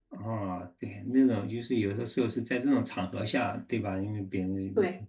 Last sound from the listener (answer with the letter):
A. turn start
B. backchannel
B